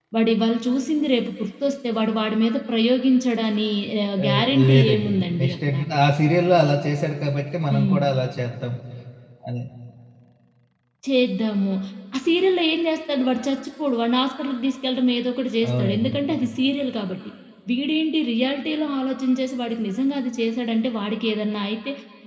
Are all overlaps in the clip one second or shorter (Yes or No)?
No